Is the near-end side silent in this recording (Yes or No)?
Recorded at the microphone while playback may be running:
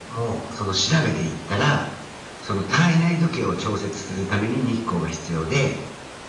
Yes